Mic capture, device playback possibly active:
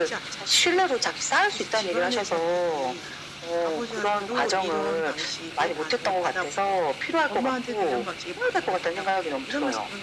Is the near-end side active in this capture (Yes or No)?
No